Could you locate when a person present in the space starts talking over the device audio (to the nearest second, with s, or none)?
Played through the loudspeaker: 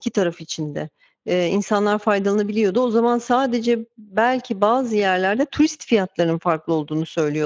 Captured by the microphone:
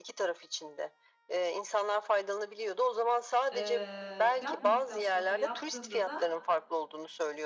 4 s